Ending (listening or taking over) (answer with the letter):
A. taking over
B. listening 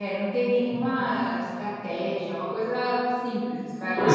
A